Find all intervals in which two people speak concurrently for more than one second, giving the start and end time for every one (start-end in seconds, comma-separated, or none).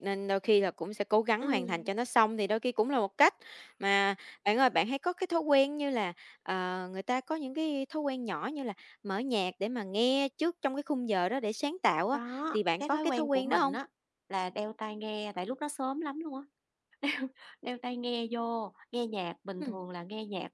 12.5-13.7